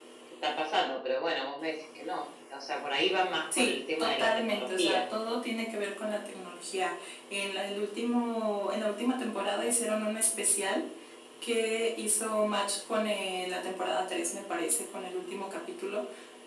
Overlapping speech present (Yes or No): Yes